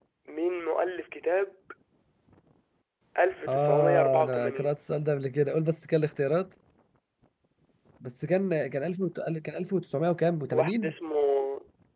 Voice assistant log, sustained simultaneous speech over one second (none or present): present